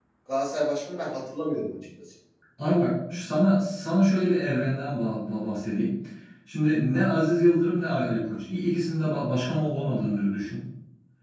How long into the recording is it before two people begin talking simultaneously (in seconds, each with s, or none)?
none